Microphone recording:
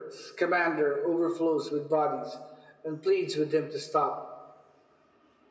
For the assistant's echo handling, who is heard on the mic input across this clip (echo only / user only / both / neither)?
echo only